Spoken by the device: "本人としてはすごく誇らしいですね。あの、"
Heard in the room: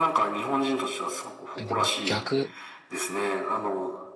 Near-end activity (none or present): present